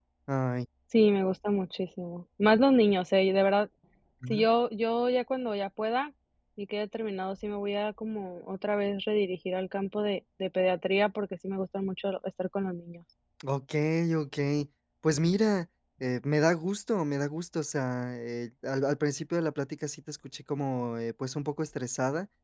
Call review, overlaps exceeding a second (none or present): none